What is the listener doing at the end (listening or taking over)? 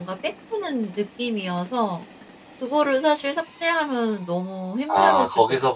taking over